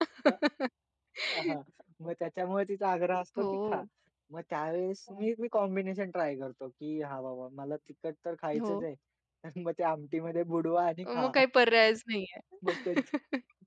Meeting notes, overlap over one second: none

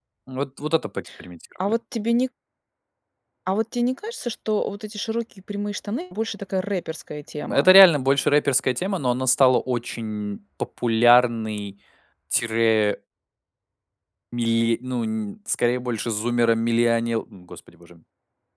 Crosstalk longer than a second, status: none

